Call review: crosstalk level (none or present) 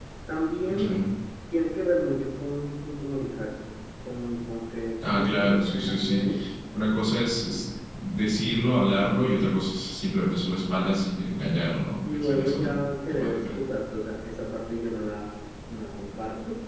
present